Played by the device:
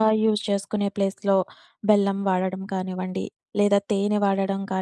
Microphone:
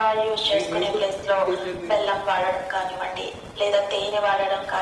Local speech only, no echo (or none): ఏ ఏ సూపు చేశారు మీరు?